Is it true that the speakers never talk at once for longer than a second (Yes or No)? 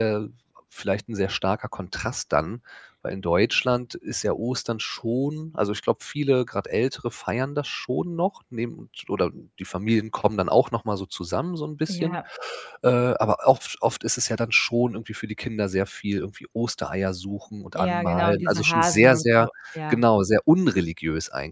No